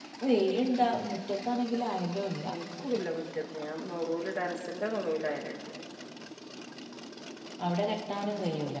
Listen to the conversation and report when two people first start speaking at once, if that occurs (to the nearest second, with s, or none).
none